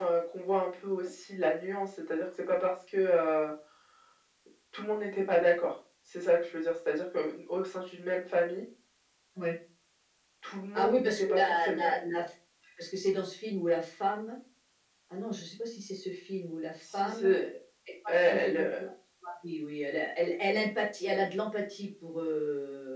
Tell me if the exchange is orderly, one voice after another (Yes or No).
No